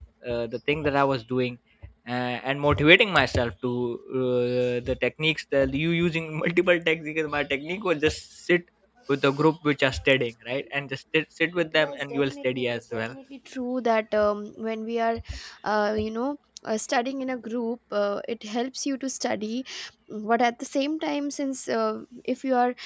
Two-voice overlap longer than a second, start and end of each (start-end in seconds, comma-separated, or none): 11.8-13.1